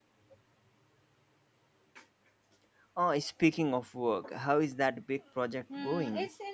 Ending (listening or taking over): taking over